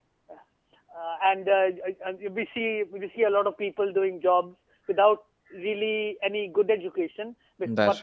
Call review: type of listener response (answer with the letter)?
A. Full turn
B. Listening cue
B